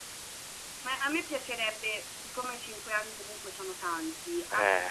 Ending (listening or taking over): listening